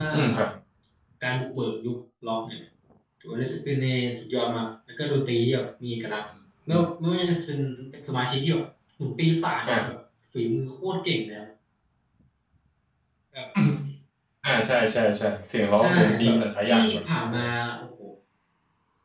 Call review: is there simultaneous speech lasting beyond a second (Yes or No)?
Yes